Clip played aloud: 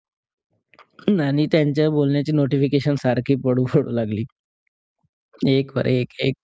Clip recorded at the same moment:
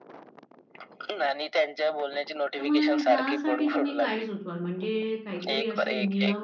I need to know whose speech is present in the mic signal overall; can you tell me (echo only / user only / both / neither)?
both